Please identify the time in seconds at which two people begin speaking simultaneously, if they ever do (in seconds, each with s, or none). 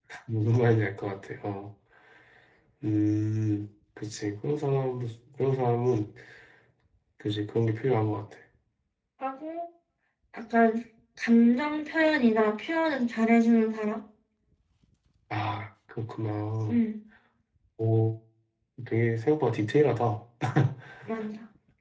none